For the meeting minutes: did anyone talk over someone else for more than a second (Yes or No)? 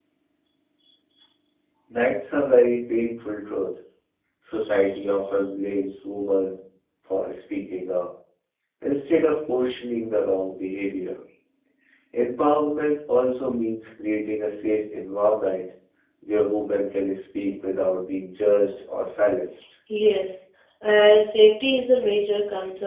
No